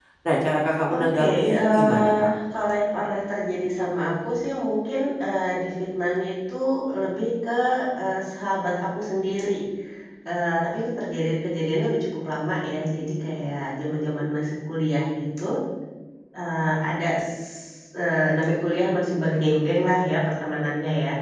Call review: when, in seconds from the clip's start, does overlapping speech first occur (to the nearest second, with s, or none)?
1 s